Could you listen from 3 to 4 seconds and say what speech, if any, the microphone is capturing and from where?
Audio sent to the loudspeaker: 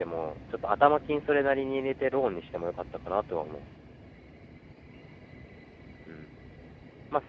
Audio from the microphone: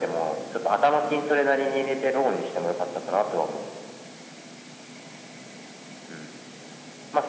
echo only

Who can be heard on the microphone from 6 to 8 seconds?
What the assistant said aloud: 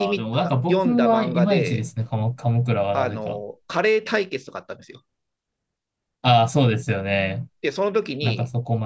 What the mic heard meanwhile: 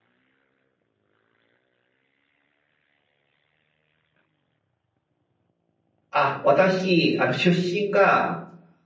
user only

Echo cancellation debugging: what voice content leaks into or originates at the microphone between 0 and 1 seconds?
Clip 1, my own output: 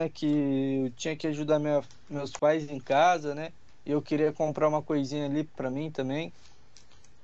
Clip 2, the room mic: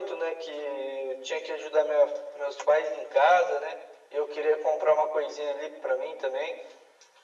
echo only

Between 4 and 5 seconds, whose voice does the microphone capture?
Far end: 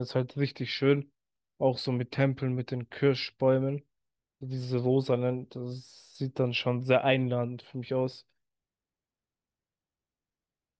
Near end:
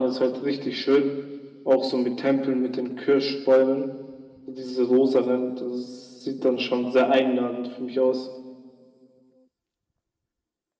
echo only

